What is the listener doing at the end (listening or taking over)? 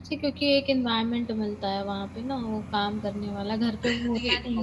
taking over